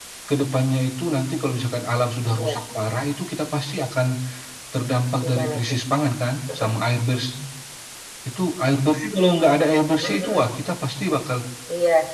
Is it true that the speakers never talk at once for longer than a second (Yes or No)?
Yes